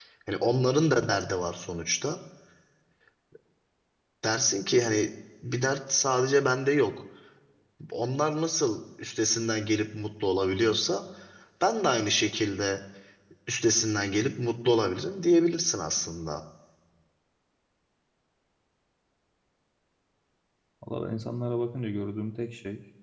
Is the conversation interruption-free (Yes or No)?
Yes